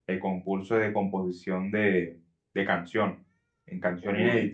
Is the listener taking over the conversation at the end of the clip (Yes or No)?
Yes